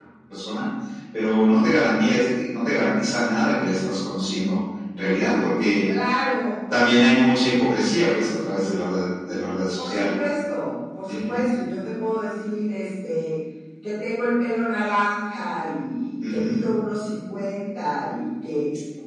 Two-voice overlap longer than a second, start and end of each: none

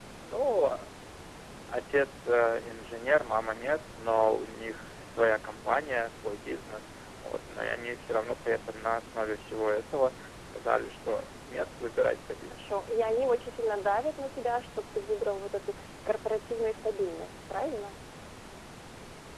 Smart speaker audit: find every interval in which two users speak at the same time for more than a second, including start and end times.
none

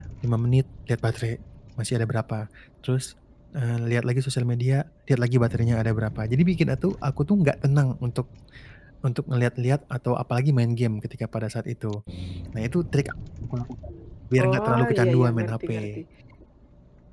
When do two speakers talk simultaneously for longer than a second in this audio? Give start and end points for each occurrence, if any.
14.4-16.0

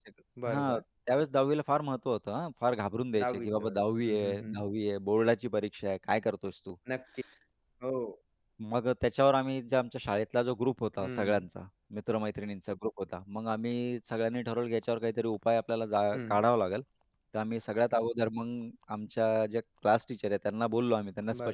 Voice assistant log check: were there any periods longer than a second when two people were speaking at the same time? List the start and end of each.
3.2-4.6

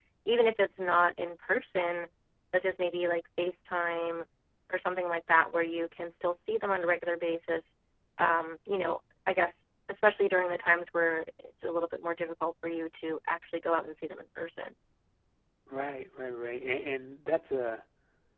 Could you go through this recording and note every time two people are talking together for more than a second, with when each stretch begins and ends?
none

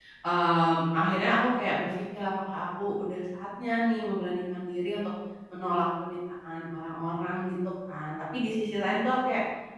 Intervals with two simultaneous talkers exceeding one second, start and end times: none

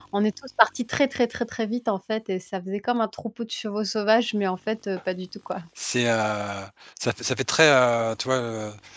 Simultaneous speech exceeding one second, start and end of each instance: none

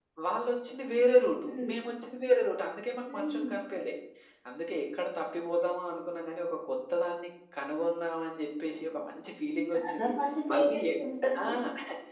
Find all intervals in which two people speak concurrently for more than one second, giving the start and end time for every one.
none

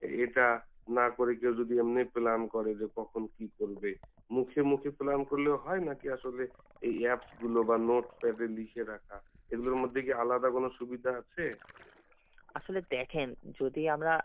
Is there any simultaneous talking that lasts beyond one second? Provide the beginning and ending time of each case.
none

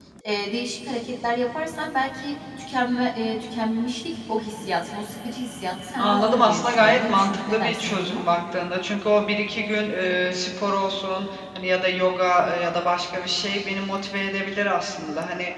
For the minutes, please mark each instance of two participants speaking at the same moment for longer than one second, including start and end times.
6.0-8.2

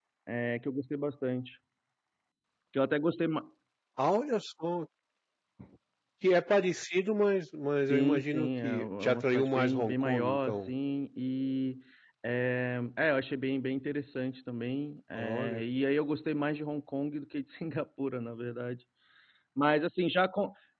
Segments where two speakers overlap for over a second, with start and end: 7.8-10.7

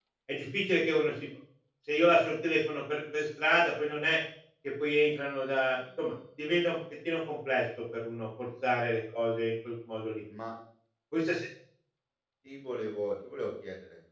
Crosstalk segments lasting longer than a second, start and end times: none

